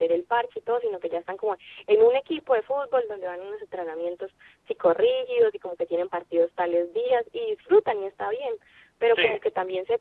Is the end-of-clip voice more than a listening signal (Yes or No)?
No